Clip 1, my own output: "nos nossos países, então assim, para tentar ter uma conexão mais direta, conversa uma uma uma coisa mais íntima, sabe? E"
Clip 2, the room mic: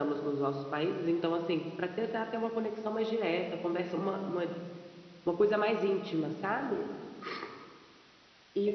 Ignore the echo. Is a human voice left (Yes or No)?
No